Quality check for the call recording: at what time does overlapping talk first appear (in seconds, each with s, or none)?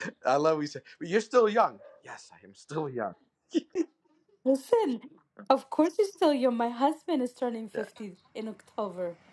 none